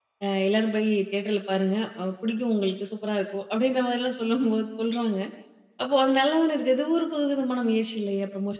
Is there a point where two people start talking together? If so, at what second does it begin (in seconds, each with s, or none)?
none